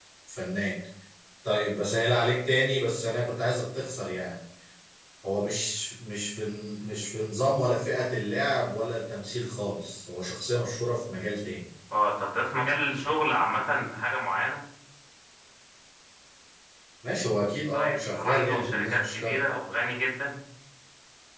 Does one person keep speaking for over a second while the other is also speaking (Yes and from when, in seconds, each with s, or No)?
Yes, from 17.7 s